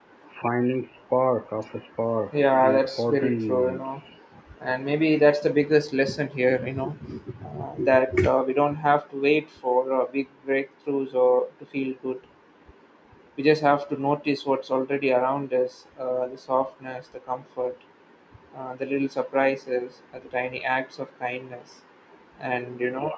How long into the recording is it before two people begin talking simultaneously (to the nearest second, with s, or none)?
2 s